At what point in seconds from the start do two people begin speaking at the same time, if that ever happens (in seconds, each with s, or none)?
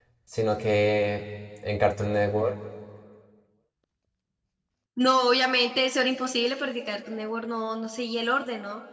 none